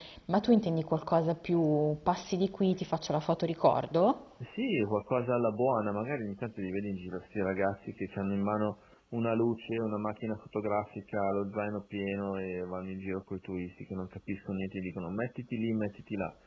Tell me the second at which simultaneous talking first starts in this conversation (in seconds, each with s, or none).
none